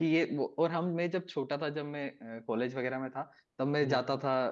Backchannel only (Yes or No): Yes